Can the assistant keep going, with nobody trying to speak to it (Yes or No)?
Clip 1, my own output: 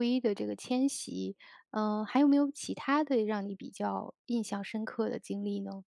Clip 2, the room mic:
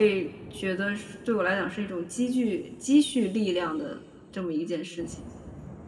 No